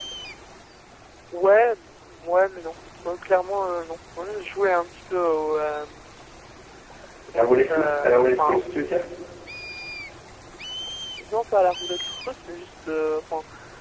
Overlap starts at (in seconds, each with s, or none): 7.3 s